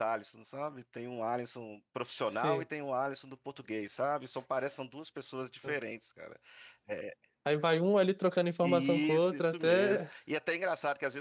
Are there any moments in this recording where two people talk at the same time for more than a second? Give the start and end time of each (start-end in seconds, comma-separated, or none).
8.6-10.1